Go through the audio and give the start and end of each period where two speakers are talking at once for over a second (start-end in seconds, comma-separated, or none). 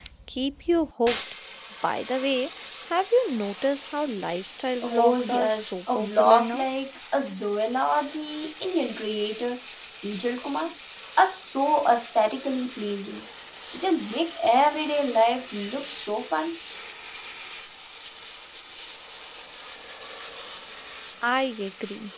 4.8-6.6